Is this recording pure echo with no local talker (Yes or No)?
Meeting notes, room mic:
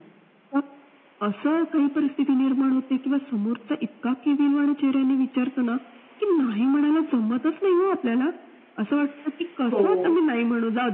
No